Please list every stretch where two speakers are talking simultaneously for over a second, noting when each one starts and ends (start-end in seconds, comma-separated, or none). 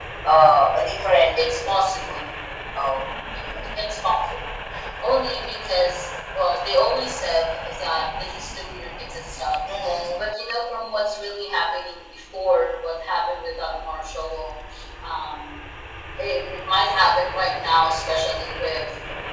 none